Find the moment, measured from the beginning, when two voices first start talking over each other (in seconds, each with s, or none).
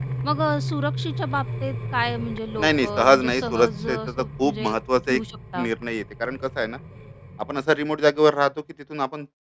2.6 s